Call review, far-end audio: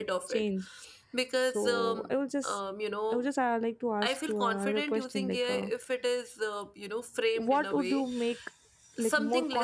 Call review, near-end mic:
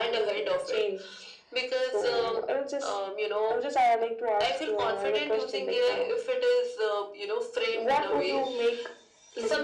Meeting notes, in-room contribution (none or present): none